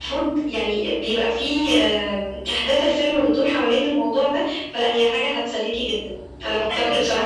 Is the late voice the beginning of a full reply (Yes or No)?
Yes